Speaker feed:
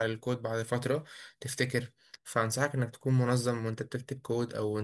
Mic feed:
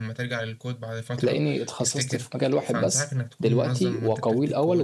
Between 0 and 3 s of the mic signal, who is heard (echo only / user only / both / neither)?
both